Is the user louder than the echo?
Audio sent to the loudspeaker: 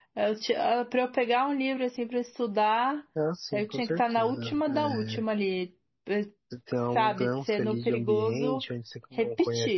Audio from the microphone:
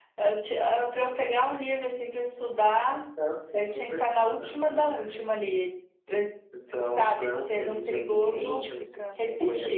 No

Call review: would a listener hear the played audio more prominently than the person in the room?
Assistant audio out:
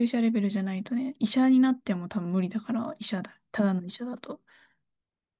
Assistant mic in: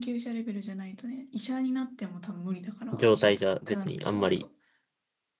No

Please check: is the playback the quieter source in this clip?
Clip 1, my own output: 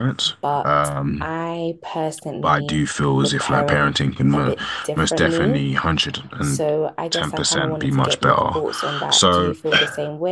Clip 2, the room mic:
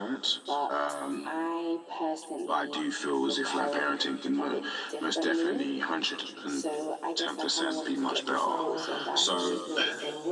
No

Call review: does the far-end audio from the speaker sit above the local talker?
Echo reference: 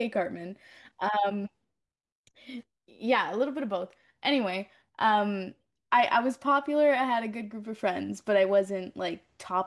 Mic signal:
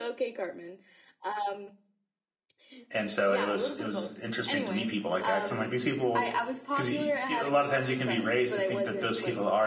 No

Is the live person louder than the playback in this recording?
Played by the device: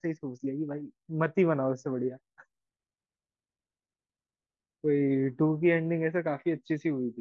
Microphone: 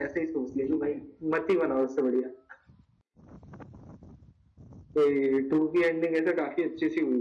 No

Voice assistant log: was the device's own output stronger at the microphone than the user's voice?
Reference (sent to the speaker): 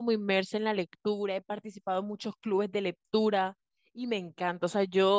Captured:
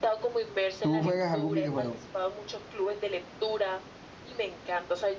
No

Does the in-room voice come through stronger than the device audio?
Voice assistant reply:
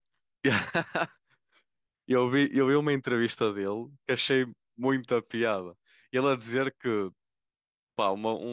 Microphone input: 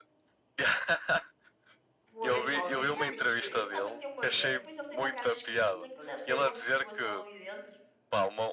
No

